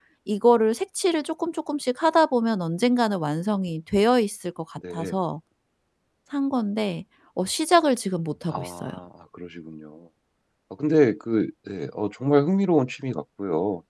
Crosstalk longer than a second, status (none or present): none